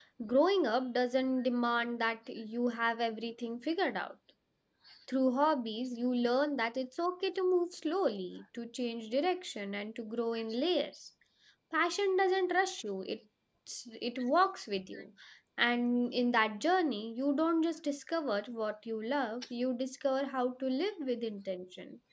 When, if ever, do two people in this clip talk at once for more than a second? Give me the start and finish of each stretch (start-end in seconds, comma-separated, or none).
none